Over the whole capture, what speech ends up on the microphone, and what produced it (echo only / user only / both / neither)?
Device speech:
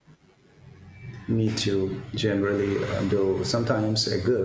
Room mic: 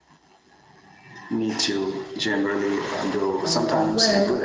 both